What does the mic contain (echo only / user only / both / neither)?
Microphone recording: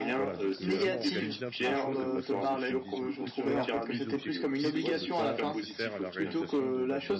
both